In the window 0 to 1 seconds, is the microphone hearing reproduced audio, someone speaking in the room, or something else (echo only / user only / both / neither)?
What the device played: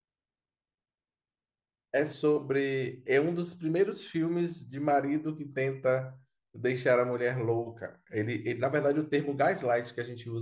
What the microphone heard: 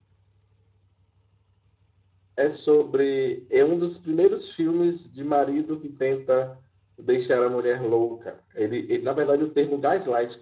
neither